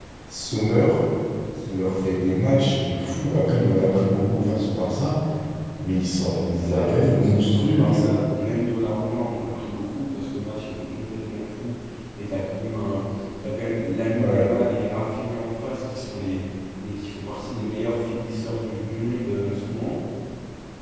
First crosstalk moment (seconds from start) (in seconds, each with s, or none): 6.2 s